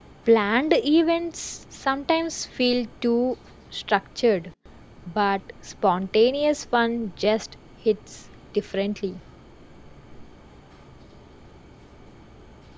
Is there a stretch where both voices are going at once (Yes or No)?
No